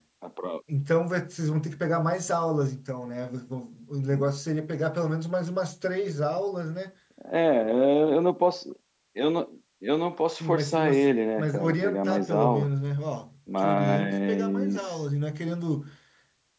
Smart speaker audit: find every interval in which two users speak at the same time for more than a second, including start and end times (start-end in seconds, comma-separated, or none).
10.4-12.7, 13.6-15.0